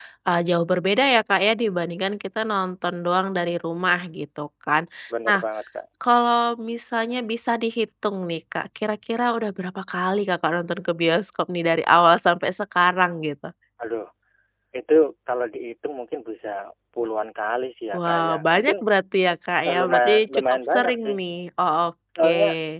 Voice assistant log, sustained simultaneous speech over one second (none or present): present